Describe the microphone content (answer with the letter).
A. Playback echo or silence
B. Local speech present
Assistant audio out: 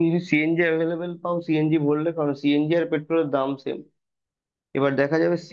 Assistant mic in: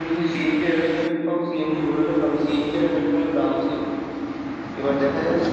A